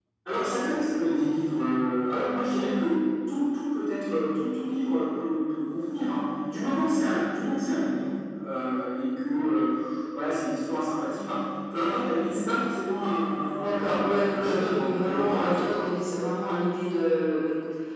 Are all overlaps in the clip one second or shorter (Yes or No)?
No